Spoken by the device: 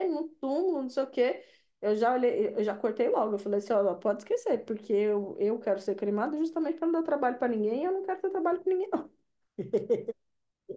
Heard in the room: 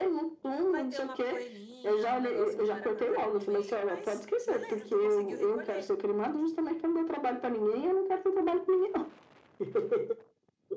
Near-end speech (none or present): present